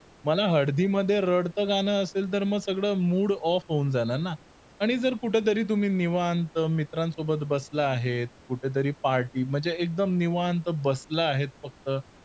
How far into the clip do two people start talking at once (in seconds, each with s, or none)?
none